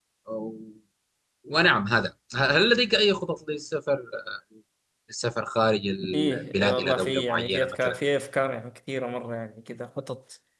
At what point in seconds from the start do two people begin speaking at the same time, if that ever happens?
6.1 s

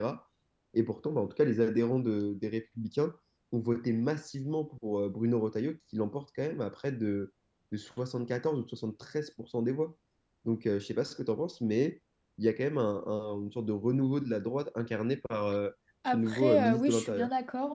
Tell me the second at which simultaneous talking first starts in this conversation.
16.0 s

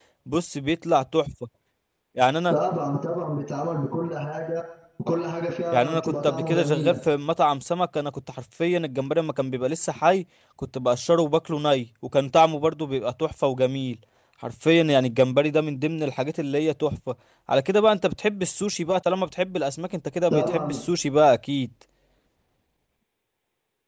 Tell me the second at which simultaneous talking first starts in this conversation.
5.7 s

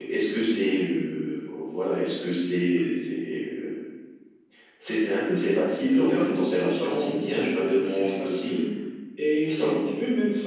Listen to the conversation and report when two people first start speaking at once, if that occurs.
5.9 s

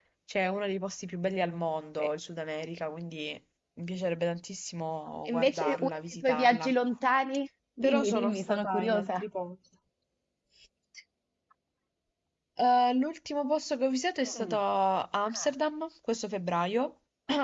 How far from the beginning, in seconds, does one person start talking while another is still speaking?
5.3 s

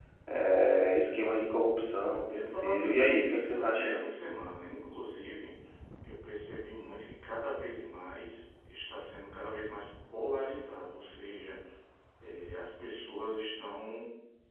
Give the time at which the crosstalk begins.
2.3 s

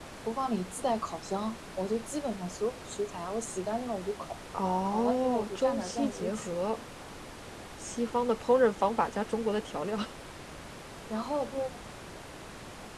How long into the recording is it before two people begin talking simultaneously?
4.9 s

